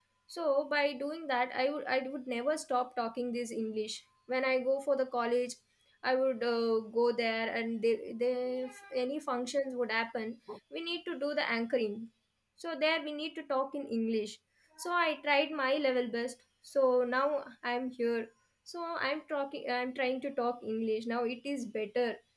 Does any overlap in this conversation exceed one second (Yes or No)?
No